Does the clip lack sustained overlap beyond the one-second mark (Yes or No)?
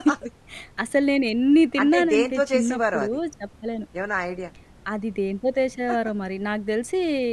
No